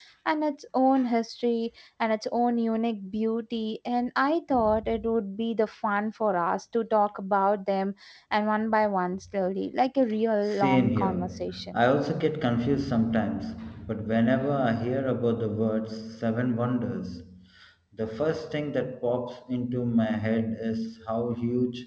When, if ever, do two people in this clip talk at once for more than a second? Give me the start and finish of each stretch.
10.4-11.8

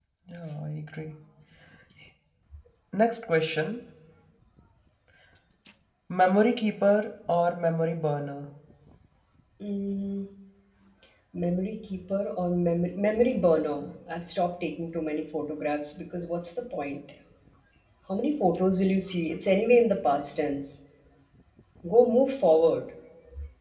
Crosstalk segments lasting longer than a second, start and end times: none

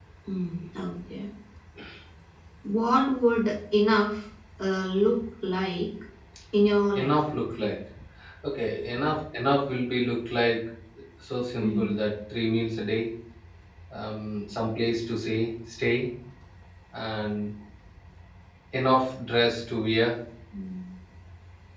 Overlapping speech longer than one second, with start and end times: none

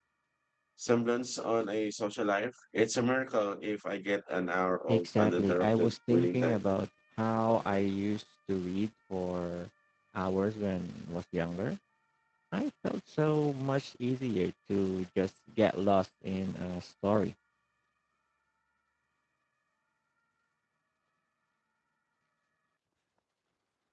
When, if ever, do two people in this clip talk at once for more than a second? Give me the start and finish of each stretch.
4.9-6.6

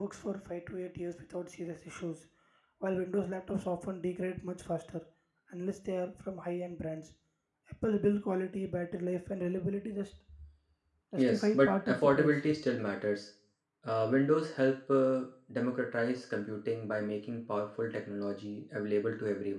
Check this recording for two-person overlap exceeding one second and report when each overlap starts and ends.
11.2-12.5

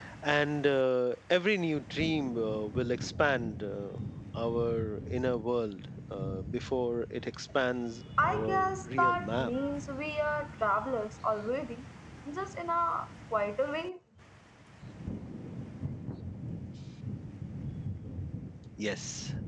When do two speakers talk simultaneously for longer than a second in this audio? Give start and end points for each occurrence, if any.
8.2-9.5

